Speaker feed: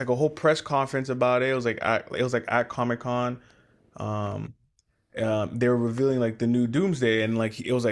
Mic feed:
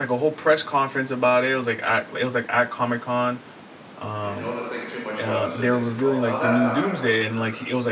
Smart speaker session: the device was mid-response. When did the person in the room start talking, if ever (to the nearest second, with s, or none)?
4 s